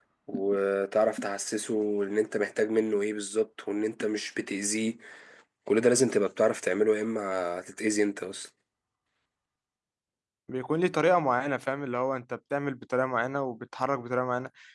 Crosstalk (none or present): none